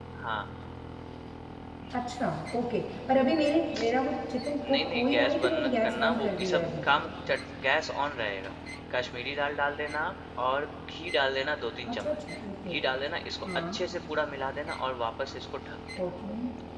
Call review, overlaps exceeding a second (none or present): present